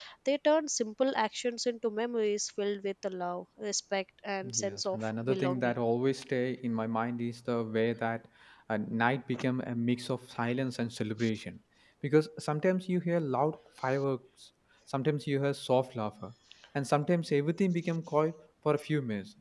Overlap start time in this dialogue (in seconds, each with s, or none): 4.4 s